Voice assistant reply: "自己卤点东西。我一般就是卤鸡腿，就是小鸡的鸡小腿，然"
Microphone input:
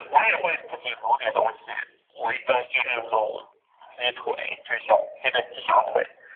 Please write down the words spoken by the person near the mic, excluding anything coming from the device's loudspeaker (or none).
none